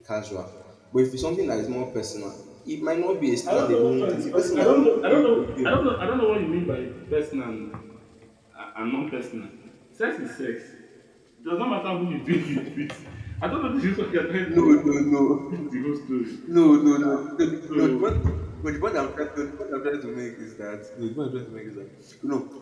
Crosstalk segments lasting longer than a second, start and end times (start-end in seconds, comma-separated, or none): 3.5-5.7